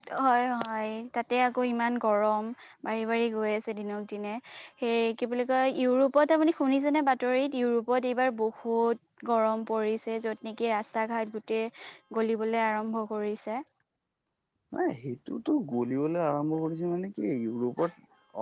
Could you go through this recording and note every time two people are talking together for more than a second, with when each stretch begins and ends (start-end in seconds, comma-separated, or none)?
none